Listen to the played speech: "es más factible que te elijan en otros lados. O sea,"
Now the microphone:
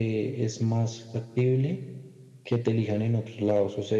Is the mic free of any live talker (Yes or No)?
Yes